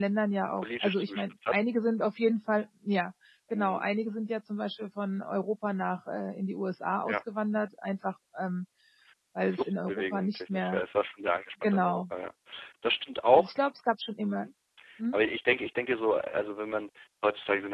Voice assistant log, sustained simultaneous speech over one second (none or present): present